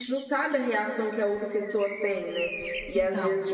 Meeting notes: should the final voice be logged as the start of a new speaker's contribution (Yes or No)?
No